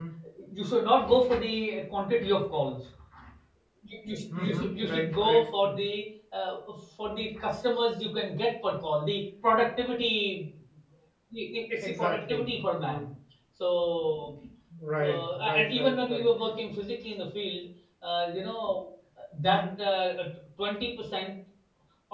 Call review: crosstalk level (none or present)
present